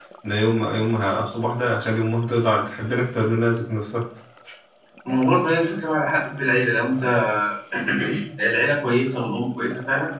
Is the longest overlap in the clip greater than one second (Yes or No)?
No